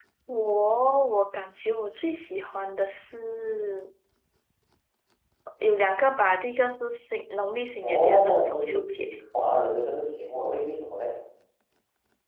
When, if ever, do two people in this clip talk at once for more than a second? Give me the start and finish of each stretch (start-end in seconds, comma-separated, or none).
7.8-9.1